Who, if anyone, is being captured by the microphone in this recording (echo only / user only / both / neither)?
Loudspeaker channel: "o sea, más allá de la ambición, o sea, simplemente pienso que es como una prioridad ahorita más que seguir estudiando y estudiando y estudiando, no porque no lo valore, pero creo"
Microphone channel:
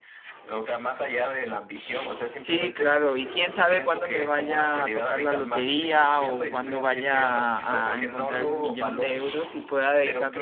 both